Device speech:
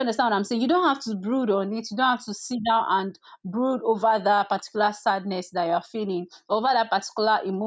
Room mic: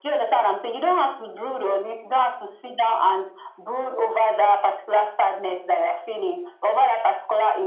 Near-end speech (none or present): none